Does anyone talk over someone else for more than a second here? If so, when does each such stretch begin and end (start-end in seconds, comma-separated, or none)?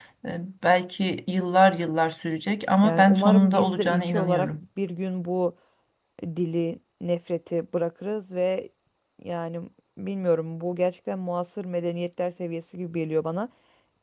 2.8-4.5